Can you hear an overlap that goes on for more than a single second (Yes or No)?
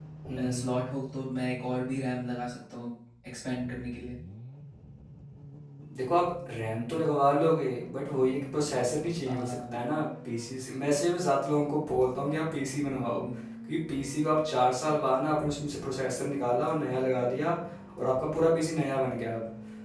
No